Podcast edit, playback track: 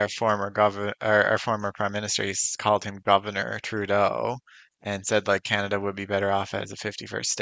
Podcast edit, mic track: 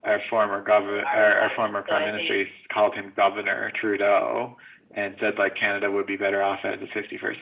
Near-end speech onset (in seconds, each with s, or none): 0.9 s